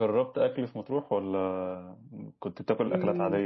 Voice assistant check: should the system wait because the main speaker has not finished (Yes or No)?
No